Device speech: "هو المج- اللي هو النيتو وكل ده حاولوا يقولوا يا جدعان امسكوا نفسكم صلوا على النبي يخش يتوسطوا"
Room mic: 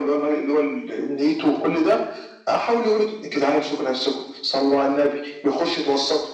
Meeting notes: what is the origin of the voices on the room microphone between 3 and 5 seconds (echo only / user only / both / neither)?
echo only